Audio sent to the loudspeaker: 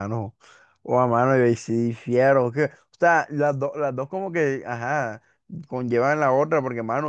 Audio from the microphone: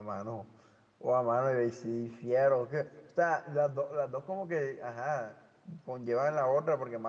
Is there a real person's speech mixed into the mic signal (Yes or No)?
No